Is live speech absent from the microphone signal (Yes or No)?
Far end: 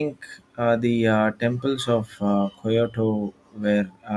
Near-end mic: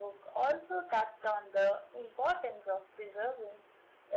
No